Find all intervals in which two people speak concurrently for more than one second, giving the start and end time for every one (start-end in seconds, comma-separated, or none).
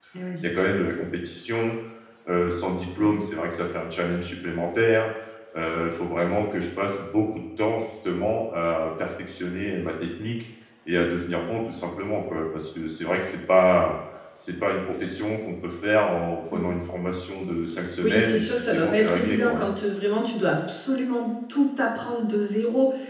18.0-19.6